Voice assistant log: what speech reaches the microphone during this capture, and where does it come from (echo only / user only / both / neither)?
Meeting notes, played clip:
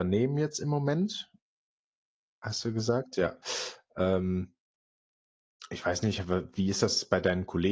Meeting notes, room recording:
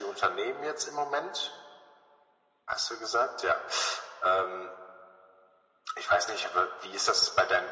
echo only